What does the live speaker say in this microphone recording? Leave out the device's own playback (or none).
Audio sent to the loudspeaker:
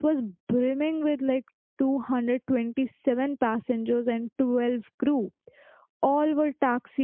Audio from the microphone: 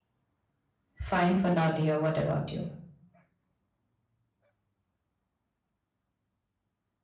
fine for now, dear. What about you?